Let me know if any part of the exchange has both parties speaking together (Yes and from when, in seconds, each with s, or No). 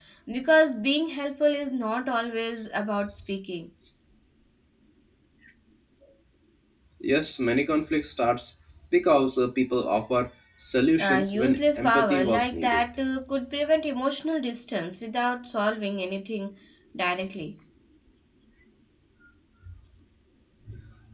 Yes, from 11.0 s